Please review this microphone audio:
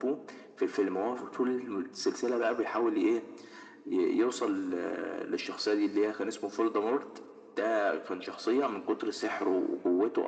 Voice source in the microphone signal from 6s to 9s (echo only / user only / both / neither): echo only